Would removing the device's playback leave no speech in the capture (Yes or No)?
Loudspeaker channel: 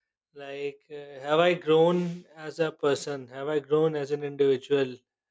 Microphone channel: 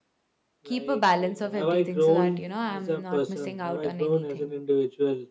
No